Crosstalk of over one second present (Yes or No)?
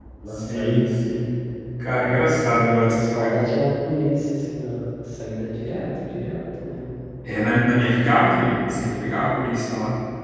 Yes